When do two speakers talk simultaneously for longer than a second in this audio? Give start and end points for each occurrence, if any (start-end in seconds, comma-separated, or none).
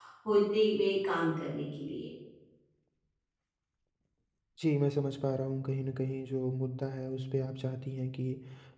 none